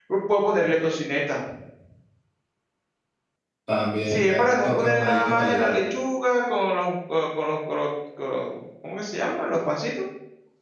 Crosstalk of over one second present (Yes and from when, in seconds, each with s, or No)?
Yes, from 4.0 s